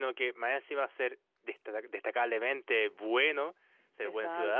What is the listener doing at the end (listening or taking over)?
listening